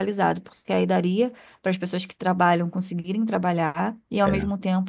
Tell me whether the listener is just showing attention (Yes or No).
Yes